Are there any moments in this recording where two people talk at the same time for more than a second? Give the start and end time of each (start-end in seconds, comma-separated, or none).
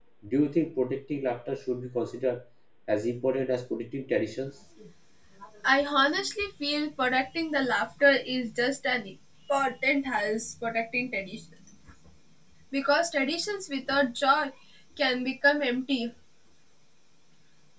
none